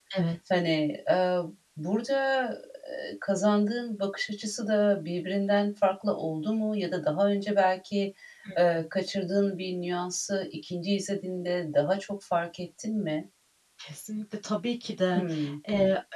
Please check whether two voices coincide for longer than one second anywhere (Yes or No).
No